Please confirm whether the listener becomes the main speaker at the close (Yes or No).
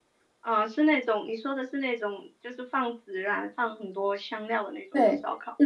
Yes